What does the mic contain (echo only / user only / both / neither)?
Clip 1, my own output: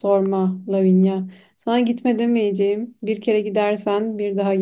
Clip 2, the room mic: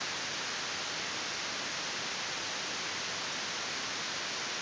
neither